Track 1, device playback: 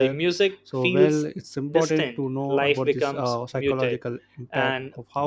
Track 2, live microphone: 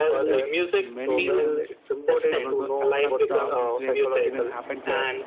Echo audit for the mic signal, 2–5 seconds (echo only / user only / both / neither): both